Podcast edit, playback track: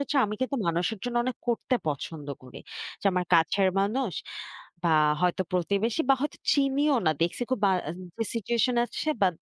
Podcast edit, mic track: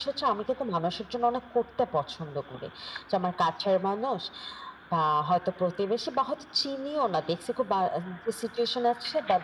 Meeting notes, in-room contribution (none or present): none